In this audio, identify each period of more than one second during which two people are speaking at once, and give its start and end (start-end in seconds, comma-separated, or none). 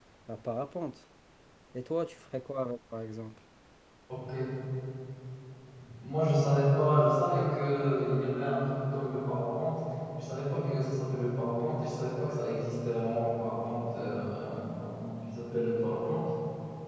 none